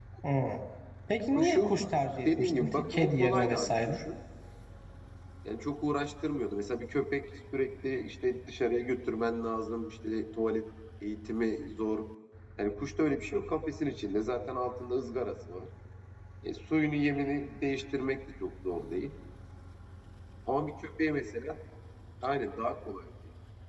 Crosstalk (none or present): present